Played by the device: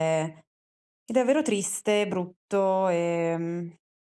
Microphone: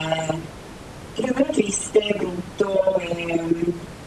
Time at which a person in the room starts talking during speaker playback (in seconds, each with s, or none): none